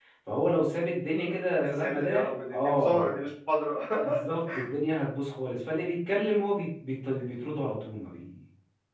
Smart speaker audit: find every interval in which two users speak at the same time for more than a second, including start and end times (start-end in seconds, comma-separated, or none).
1.6-3.1